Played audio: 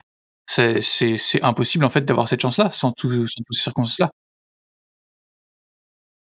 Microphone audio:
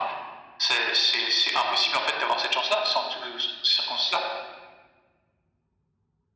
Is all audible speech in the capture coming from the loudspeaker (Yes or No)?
Yes